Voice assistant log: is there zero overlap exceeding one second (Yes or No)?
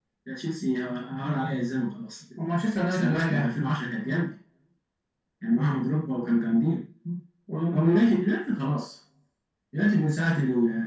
Yes